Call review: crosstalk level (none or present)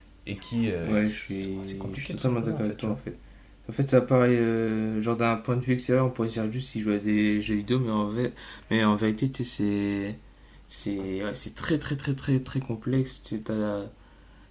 present